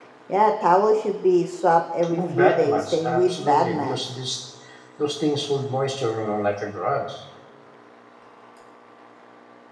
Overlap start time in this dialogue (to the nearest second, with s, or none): 2 s